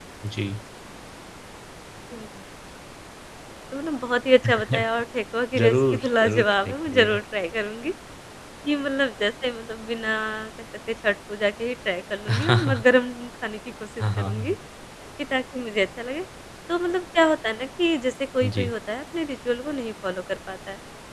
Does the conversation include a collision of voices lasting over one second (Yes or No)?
Yes